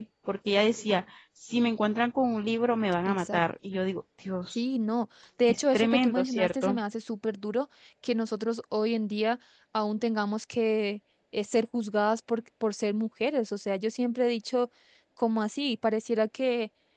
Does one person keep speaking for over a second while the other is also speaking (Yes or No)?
Yes